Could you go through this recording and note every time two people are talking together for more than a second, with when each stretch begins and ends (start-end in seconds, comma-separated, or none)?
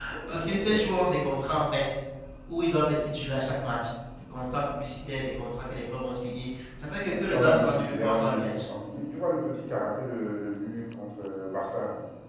7.0-8.6